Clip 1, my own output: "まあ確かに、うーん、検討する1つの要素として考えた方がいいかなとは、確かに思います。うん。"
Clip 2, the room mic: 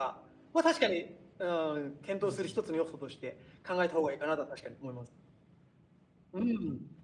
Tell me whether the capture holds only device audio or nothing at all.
No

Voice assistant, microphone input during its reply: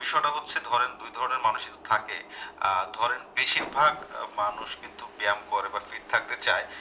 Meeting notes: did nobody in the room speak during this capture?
Yes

